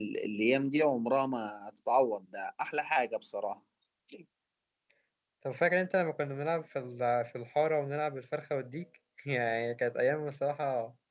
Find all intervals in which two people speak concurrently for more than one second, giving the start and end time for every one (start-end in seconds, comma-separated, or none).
none